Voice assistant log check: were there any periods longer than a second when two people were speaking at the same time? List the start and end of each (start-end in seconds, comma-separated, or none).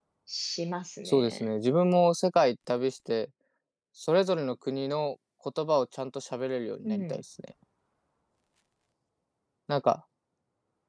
none